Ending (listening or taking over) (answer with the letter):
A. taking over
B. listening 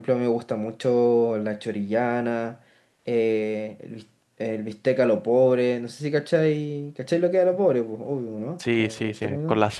A